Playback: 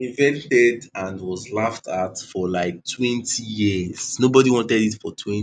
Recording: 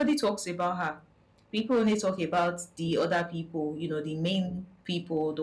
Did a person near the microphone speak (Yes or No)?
Yes